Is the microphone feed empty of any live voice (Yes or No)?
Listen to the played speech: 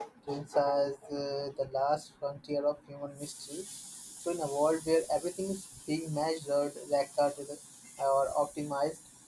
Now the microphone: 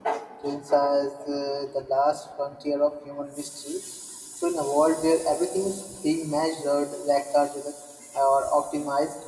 Yes